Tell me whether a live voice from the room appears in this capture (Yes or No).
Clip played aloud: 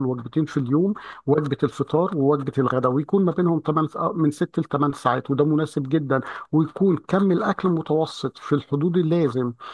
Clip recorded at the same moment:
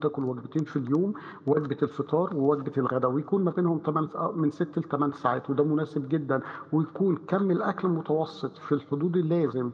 No